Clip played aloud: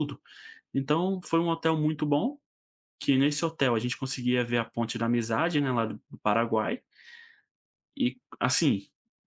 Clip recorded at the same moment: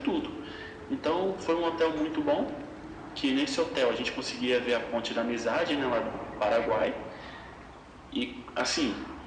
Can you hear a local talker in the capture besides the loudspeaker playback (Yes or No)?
No